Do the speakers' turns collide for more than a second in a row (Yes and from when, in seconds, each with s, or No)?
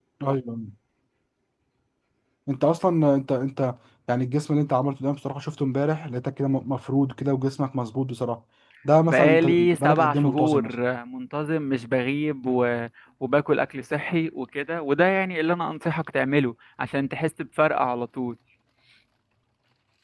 Yes, from 9.1 s